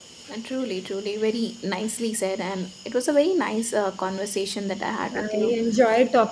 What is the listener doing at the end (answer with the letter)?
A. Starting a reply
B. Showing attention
A